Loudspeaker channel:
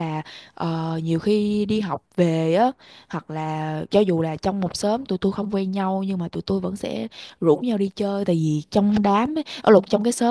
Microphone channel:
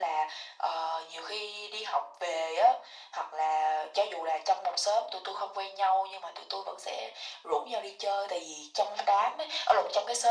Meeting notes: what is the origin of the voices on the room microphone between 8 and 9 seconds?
echo only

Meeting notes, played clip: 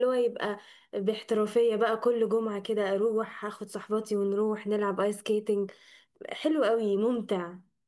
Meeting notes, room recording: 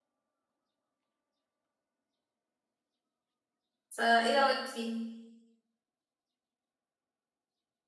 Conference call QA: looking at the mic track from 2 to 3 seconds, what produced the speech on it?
neither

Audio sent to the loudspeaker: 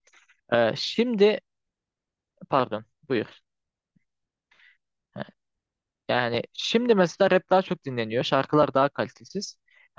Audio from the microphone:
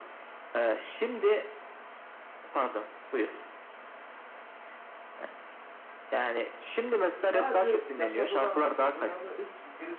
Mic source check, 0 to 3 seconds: echo only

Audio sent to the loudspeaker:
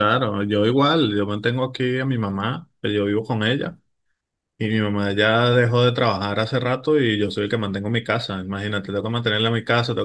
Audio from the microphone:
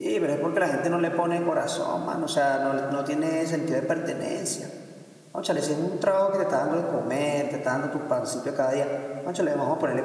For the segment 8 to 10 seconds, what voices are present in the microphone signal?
user only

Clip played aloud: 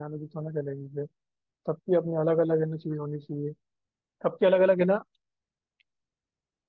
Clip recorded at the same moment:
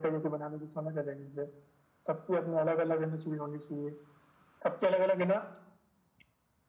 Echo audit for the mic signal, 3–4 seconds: echo only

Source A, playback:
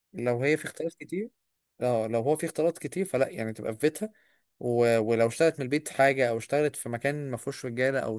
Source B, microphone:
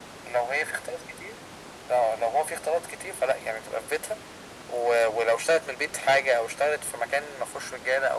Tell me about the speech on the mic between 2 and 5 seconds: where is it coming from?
echo only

